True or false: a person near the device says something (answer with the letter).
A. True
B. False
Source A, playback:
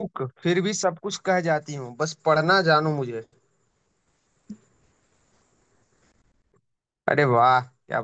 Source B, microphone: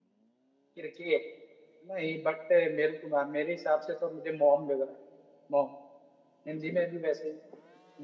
A